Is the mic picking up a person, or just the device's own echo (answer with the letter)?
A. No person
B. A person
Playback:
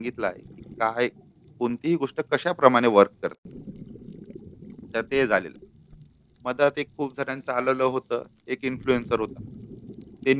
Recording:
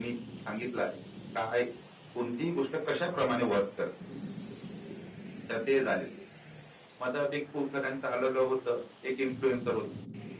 A